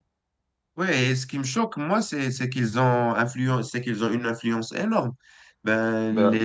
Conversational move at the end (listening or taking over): listening